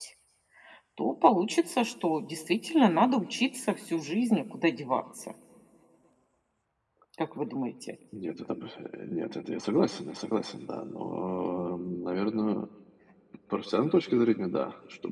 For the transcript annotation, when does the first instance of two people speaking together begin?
none

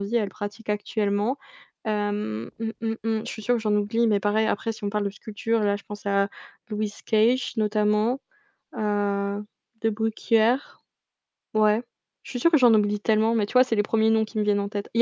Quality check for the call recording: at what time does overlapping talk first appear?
none

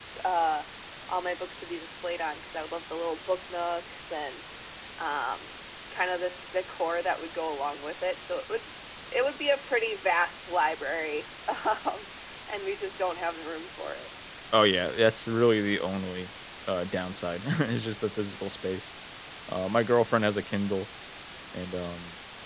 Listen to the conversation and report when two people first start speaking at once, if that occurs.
none

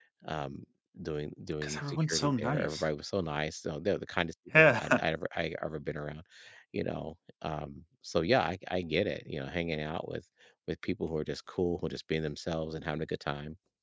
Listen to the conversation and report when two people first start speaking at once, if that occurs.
1.6 s

